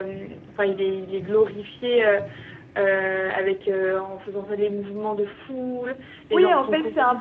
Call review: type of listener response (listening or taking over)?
taking over